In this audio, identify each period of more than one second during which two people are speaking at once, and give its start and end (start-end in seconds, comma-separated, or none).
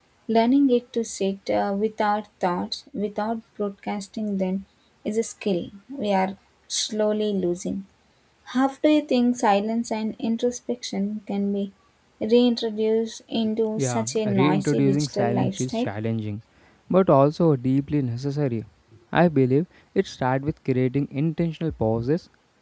13.8-15.9